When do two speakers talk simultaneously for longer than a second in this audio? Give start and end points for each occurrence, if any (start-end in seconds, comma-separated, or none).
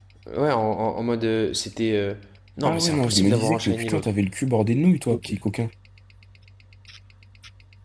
2.6-4.1